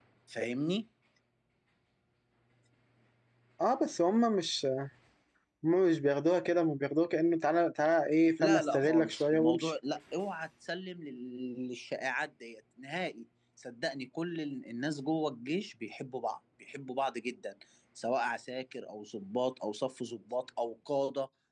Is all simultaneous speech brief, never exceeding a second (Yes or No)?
No